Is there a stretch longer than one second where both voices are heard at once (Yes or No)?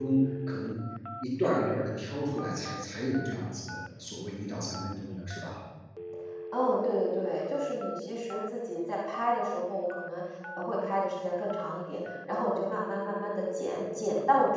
No